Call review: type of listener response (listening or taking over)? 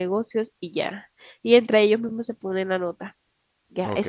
taking over